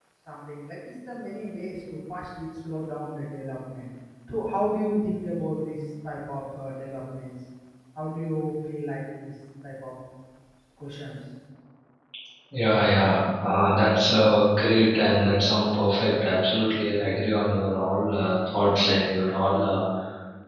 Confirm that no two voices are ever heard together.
Yes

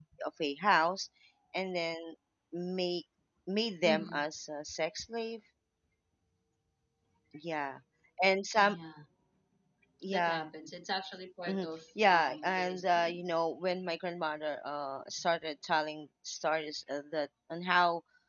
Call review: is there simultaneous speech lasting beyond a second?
Yes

